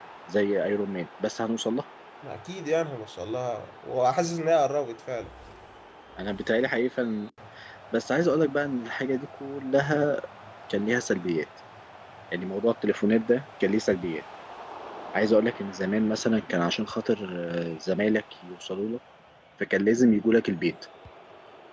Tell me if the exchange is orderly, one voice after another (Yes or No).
Yes